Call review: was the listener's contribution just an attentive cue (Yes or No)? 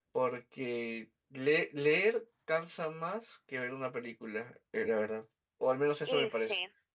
No